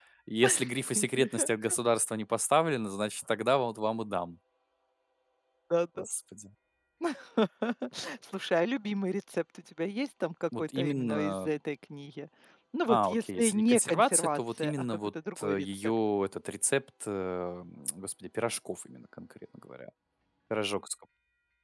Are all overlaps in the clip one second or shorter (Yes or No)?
No